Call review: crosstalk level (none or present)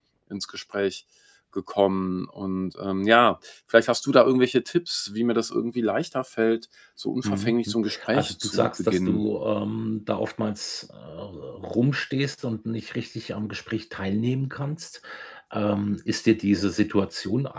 present